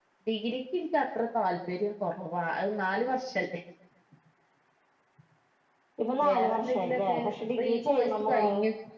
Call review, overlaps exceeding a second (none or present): present